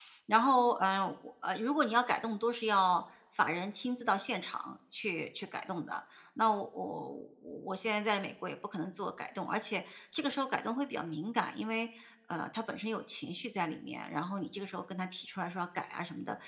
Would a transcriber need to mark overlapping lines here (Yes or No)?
No